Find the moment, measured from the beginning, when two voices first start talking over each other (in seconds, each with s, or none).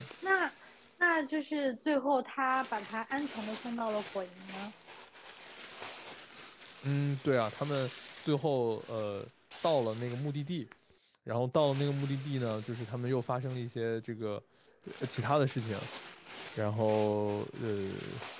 none